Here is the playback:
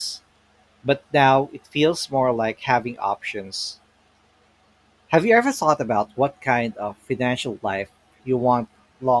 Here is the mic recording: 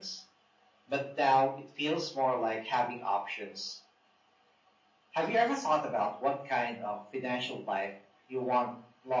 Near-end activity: none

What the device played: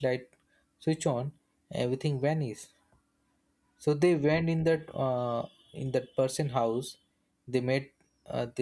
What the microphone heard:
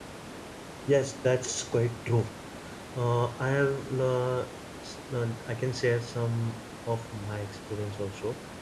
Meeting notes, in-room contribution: present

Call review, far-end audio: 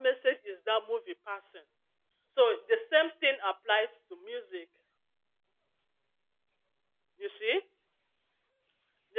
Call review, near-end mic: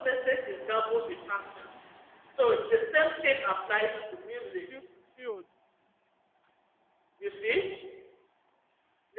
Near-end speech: present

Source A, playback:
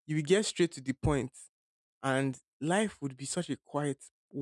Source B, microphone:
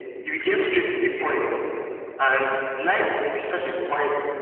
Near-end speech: none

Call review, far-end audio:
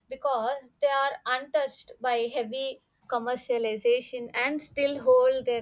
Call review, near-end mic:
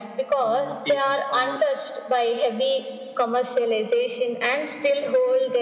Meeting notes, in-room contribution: present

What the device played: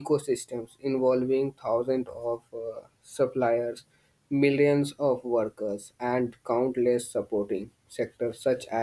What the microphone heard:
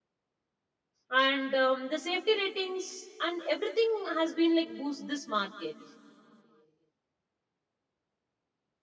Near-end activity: present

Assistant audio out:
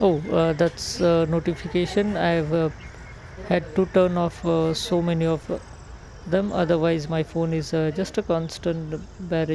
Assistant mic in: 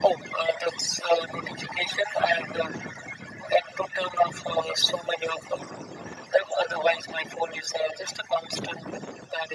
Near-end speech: none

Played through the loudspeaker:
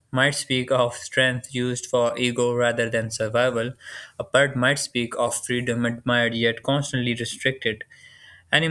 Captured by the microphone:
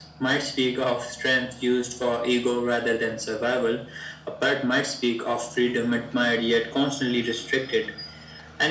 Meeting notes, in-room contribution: none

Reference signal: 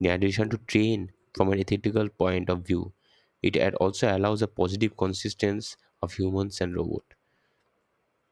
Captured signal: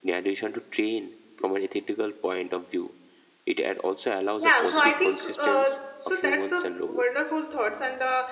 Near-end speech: present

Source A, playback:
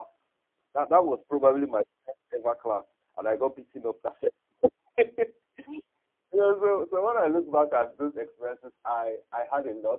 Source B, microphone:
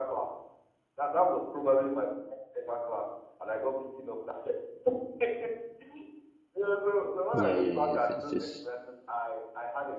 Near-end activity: present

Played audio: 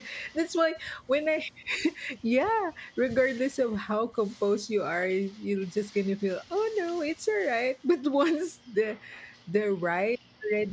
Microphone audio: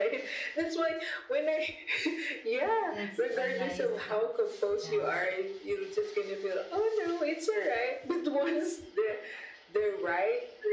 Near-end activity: present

